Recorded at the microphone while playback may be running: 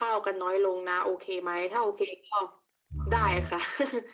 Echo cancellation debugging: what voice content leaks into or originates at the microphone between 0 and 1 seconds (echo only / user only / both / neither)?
echo only